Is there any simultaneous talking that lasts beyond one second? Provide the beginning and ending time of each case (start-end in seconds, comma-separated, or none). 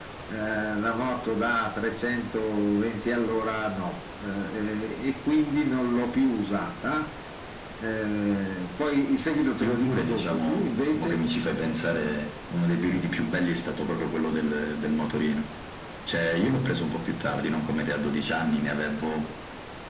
9.6-11.2